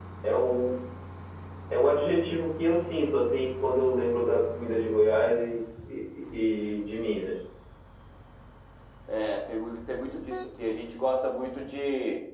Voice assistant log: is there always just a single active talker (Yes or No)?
Yes